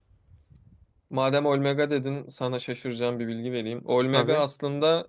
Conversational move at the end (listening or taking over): listening